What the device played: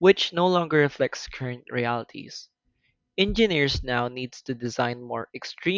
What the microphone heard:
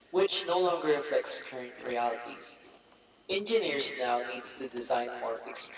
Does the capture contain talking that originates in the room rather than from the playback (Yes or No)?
No